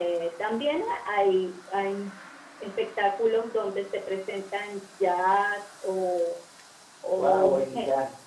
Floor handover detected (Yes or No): Yes